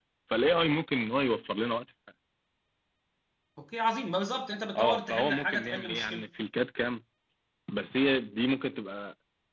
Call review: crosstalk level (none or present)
present